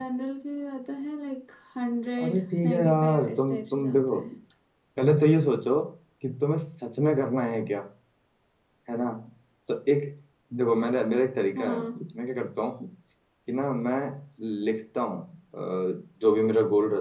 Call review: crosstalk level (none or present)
present